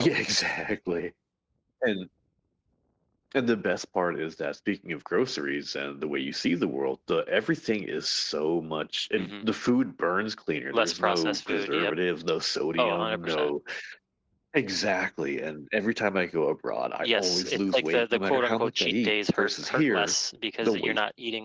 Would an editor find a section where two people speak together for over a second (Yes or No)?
Yes